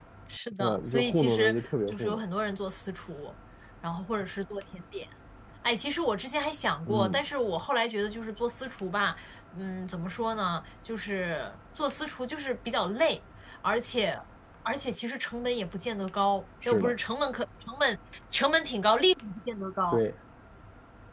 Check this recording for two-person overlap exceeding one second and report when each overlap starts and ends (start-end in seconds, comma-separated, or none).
0.6-2.2